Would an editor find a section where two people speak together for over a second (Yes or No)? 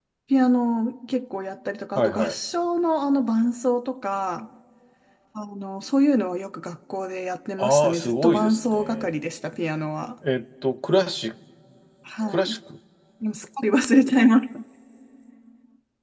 Yes